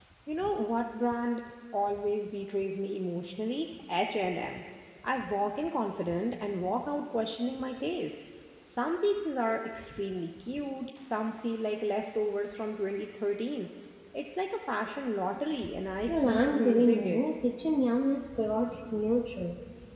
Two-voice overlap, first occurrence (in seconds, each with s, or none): 16.1 s